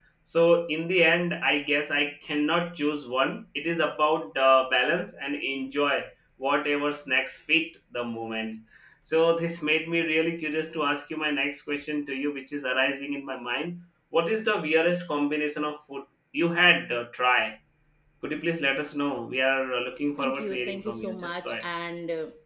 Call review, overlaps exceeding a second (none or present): present